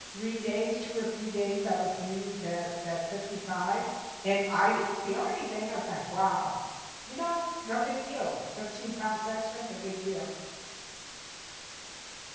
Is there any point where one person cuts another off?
No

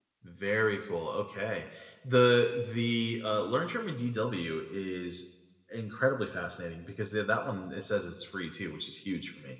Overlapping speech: No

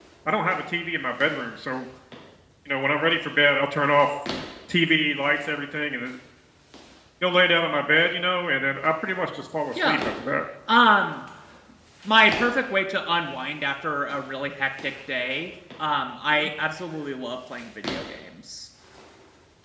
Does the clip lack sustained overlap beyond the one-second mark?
Yes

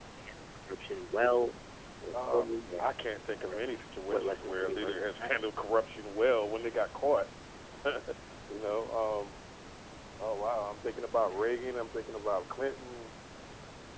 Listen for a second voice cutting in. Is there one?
Yes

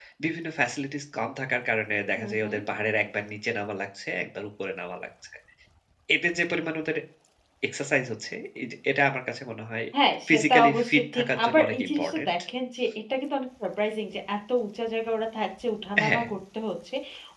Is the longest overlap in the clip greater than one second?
Yes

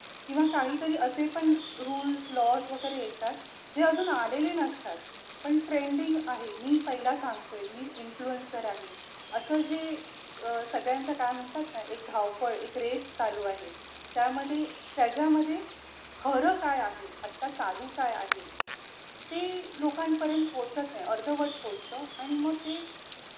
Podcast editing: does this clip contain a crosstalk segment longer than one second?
No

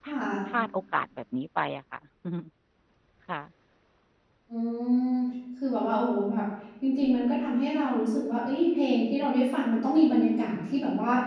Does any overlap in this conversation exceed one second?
No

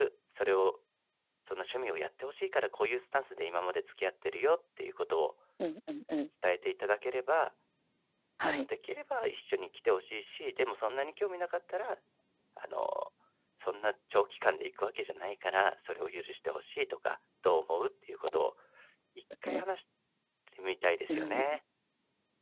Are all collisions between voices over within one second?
Yes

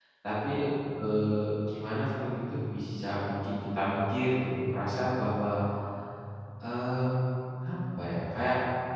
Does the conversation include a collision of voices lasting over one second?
No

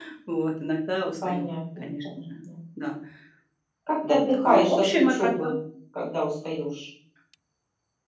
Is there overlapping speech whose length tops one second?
Yes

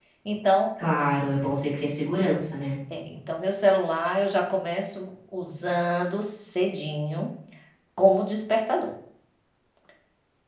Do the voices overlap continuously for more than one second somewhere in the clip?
No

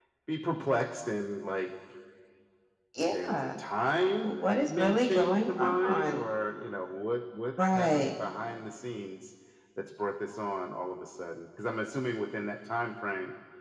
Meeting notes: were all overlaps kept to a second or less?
No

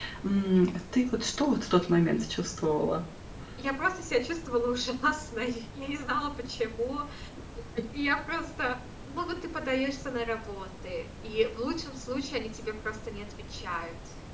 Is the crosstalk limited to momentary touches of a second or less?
Yes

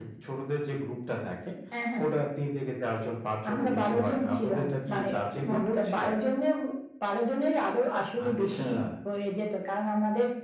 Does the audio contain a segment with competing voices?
Yes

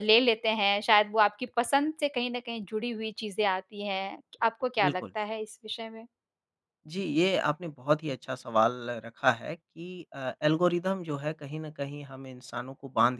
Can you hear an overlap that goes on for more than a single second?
No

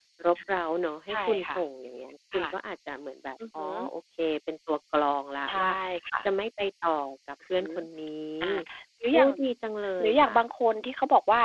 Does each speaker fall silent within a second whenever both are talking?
Yes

